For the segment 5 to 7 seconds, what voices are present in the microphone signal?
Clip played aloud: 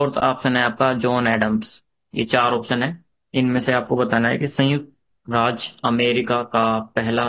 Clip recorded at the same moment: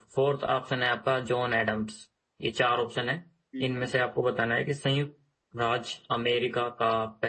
echo only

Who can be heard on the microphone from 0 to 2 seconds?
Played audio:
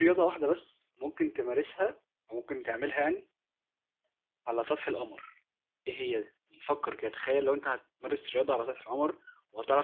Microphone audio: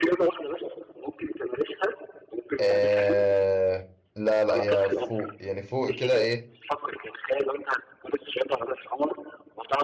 echo only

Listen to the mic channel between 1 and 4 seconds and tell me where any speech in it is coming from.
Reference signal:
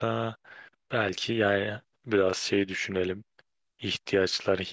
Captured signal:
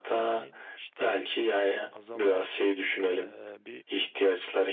both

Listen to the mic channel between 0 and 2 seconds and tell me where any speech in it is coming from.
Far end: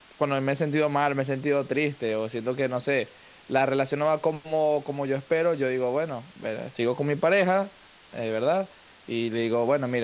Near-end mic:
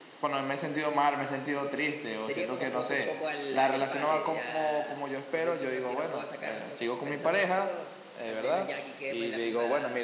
echo only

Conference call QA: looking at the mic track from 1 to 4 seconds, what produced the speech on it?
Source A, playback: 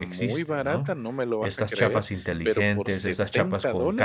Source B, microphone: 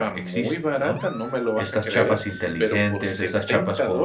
echo only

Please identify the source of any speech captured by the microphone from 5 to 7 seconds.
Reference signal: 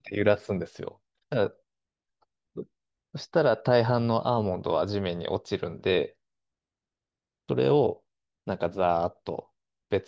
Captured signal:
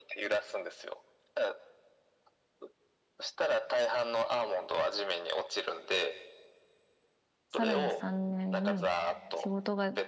echo only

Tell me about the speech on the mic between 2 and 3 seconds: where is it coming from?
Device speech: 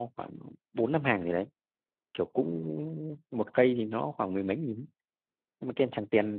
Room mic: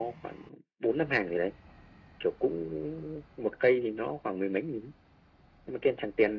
echo only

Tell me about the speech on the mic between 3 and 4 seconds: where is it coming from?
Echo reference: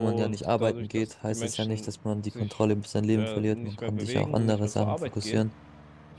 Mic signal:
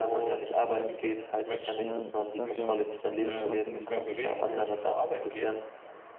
both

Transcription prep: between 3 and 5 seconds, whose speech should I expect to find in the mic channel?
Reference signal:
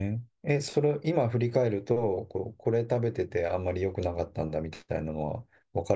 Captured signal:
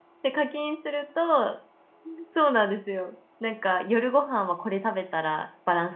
user only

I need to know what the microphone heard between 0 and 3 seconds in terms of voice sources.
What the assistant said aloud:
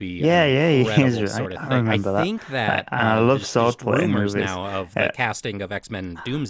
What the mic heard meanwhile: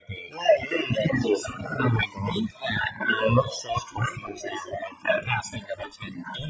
echo only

